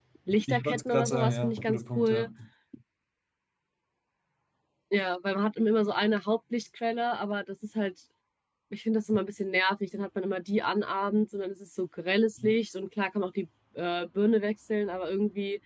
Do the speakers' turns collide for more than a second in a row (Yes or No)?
Yes